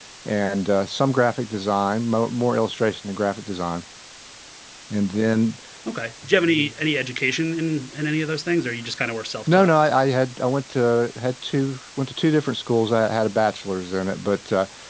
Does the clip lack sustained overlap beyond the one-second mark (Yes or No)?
Yes